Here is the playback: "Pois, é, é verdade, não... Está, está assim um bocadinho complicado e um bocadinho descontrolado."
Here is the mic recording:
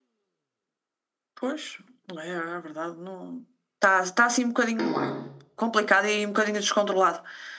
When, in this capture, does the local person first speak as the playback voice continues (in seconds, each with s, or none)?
4.8 s